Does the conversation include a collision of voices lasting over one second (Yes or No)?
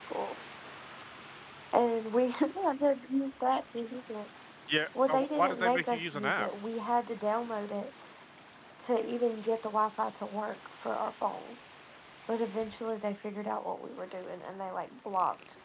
Yes